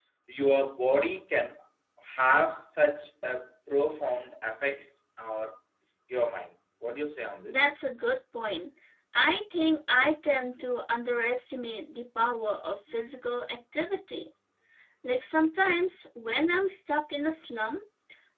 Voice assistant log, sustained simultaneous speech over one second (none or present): none